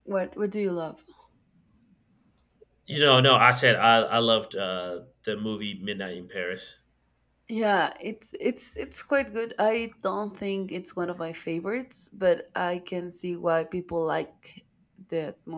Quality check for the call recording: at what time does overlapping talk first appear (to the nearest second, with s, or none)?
none